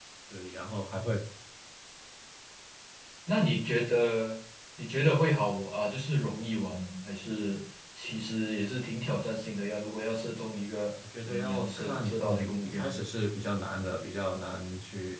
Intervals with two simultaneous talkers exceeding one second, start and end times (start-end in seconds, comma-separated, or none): 11.3-12.9